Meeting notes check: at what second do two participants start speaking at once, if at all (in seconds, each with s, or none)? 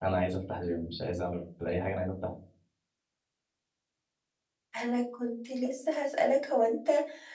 none